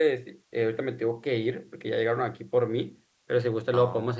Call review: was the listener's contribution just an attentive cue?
Yes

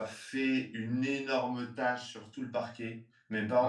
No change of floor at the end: Yes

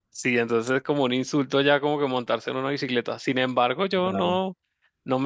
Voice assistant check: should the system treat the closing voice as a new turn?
No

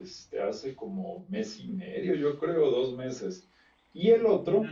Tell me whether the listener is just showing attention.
No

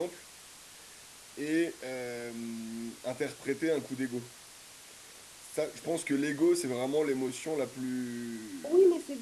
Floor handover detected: Yes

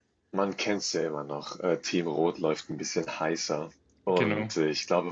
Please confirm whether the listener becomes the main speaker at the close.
No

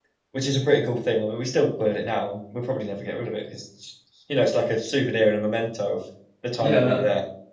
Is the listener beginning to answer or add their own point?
Yes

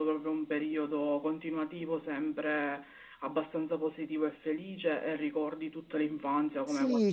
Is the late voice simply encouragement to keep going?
No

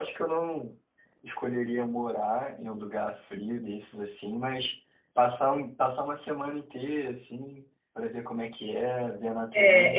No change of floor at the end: No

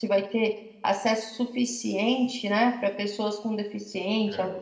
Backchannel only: Yes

